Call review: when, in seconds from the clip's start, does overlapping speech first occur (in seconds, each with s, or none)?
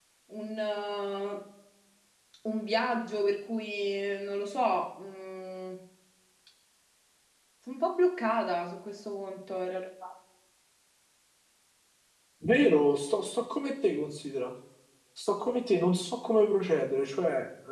none